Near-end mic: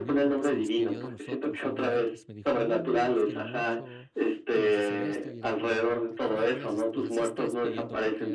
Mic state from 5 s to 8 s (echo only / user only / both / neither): both